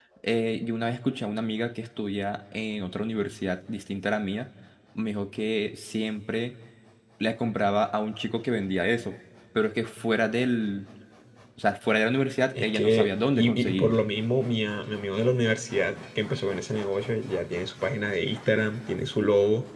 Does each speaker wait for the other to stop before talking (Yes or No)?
No